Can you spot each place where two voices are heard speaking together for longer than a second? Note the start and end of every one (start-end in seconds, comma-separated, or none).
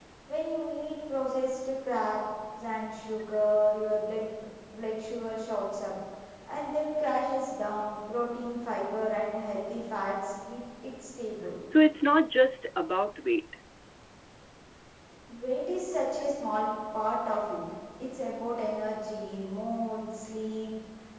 none